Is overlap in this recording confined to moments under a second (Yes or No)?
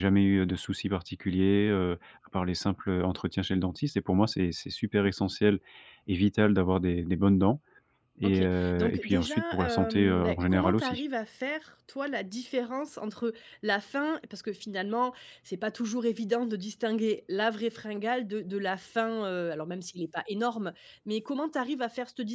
No